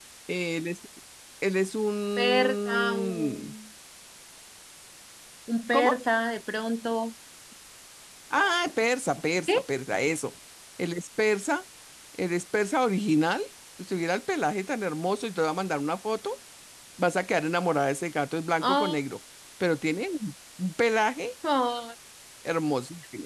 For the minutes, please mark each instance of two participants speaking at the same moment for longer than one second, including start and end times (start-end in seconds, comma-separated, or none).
2.2-3.5